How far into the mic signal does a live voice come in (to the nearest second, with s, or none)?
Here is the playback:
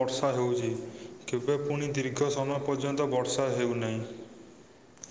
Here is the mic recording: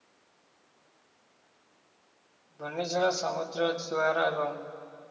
3 s